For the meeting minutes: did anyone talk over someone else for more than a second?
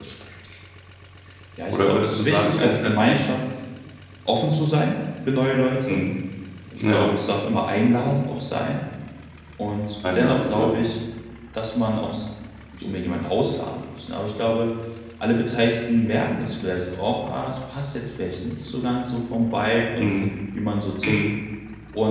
Yes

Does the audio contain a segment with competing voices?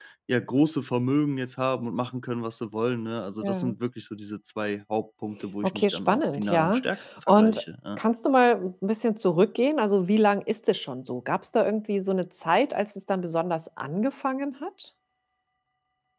Yes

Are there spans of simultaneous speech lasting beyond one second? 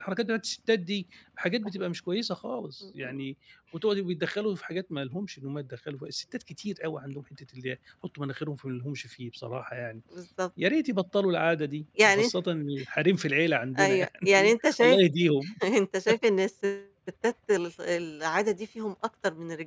Yes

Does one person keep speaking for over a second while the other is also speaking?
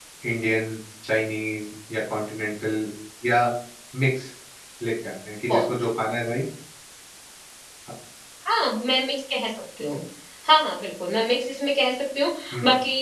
No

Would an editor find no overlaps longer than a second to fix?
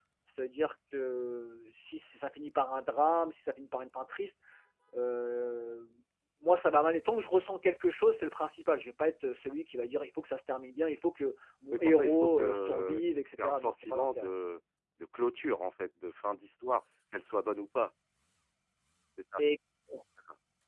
No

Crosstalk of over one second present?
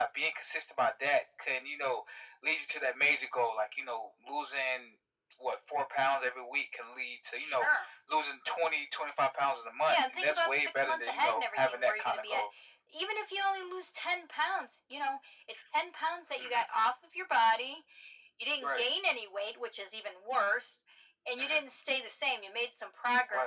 Yes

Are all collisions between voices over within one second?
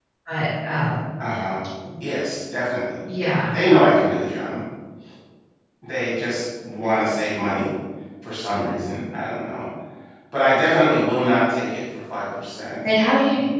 Yes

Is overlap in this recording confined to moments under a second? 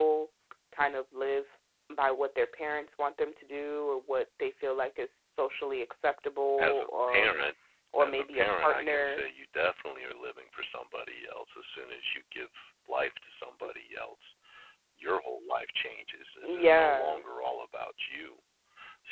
No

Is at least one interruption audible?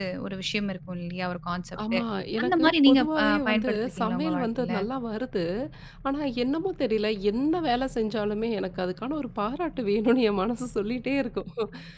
Yes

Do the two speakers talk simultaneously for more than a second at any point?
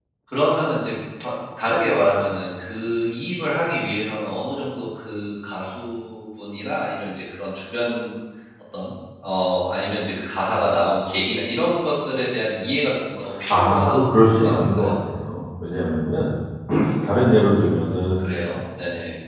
Yes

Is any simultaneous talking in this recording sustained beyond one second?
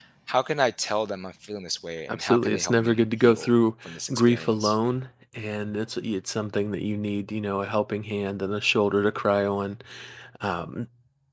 Yes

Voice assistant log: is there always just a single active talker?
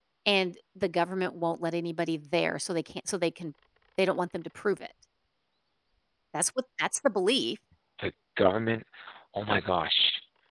Yes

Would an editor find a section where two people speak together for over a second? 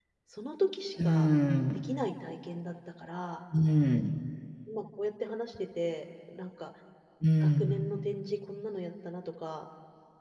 No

